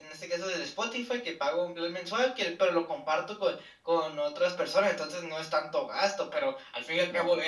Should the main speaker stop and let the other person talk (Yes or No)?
No